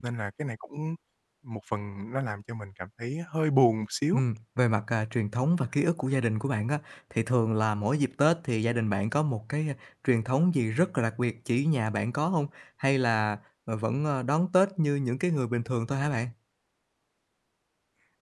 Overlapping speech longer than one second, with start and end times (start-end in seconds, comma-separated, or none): none